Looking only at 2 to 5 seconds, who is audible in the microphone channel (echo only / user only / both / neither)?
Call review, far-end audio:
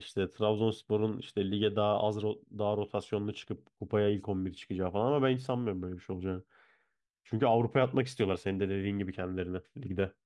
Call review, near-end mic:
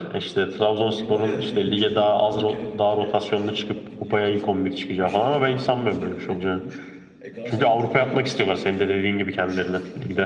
both